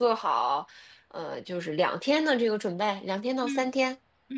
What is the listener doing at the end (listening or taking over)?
taking over